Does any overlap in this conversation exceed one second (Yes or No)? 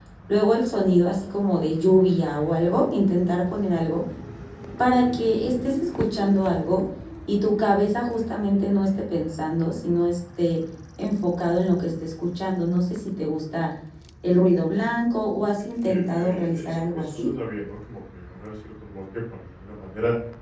Yes